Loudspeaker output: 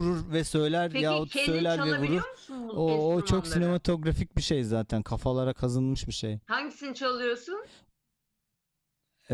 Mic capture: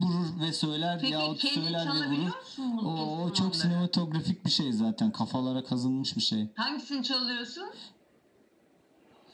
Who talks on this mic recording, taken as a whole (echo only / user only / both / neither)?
echo only